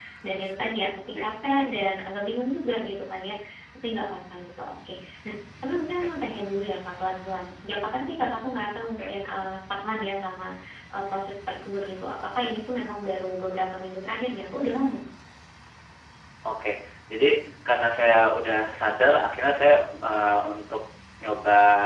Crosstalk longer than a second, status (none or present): none